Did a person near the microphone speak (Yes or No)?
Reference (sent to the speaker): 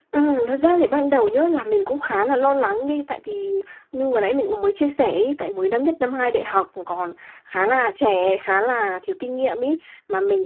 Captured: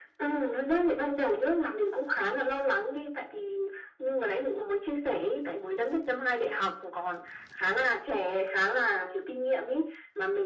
No